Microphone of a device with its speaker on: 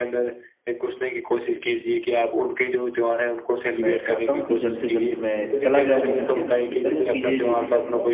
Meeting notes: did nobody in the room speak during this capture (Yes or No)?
No